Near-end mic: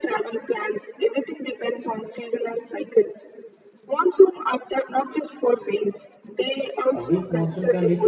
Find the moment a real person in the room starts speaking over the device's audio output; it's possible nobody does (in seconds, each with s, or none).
6.9 s